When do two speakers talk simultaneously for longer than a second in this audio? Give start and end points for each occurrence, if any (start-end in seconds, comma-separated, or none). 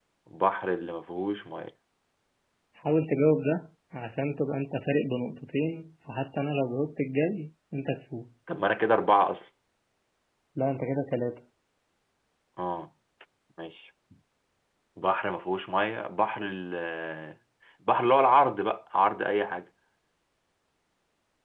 none